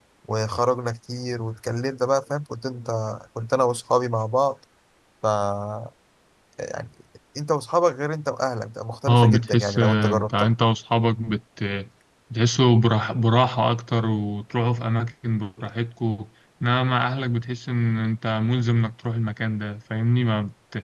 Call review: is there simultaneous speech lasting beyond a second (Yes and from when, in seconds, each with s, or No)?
Yes, from 9.1 s